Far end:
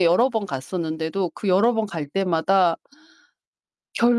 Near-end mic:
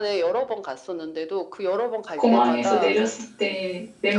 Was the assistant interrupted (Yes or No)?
Yes